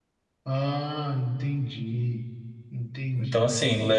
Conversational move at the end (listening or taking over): taking over